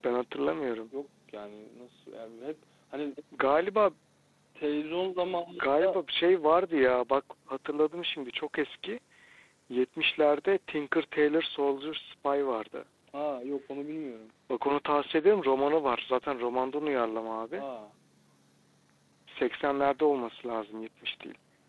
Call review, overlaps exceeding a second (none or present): none